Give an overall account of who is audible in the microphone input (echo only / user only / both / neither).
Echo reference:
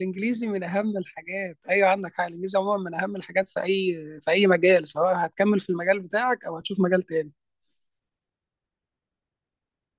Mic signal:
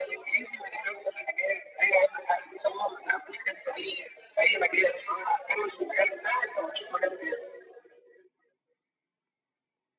echo only